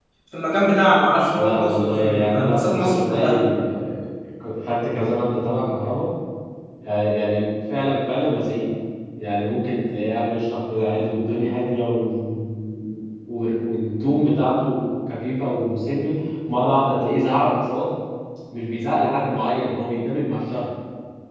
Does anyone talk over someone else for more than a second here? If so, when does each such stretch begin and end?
1.4-3.4

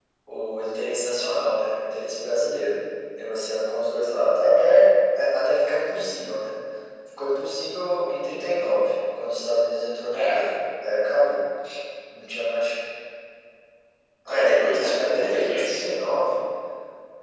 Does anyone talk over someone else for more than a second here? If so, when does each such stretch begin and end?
14.3-15.9

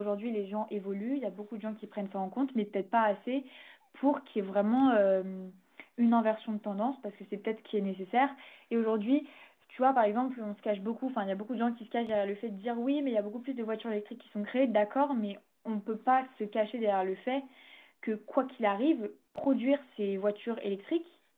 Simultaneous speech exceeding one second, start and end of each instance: none

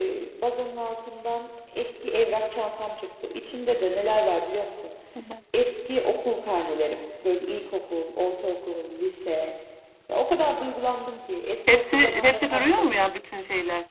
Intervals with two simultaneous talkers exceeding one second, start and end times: 11.7-13.0

